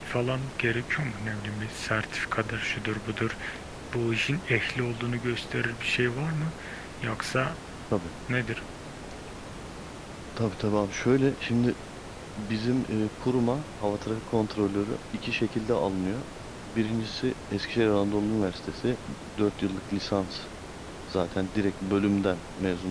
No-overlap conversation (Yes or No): Yes